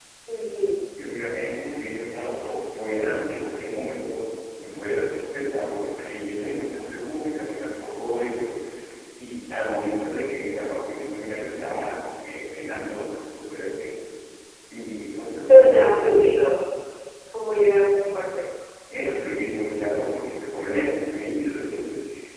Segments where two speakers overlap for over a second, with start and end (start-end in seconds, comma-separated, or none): none